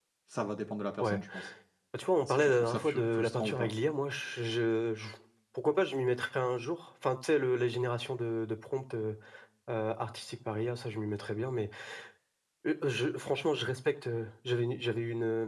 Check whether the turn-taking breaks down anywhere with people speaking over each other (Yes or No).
Yes